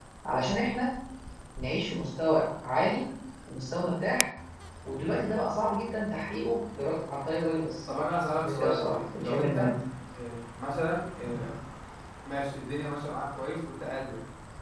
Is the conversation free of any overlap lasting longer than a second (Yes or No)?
No